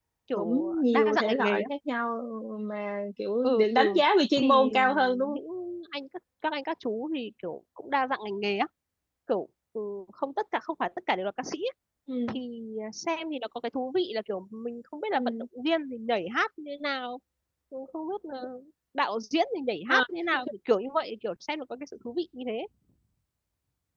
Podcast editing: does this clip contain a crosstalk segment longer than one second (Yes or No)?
Yes